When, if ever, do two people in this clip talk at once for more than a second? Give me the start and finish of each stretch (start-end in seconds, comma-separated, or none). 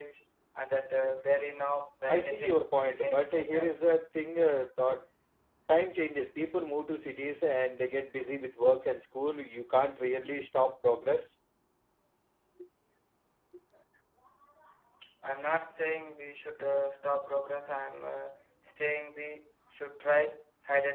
2.1-3.7